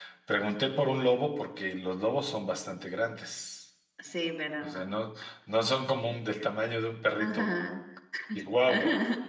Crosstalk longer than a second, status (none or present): none